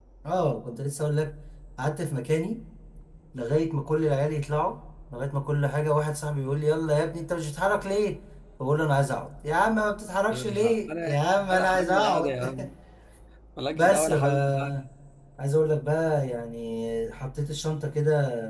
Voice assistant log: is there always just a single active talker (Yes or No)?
No